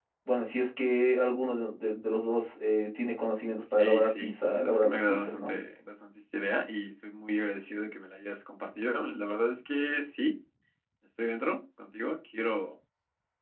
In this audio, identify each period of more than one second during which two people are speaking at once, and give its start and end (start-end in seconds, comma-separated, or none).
3.8-5.5